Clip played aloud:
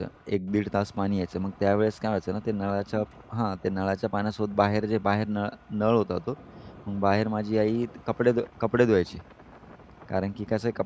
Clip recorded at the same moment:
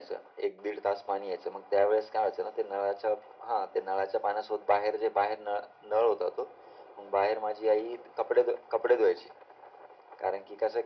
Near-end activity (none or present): none